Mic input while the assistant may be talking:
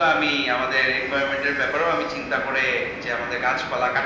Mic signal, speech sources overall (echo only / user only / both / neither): echo only